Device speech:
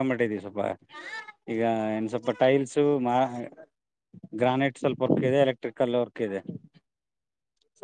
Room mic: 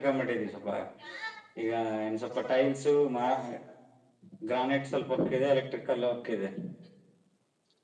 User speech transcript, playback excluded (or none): none